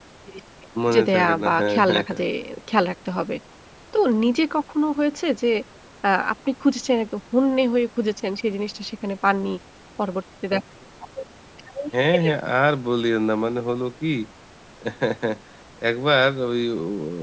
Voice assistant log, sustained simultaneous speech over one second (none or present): present